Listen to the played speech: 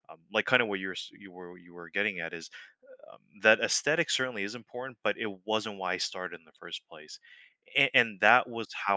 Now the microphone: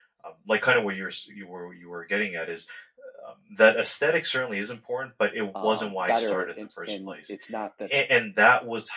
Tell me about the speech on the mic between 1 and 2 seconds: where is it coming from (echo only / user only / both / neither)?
echo only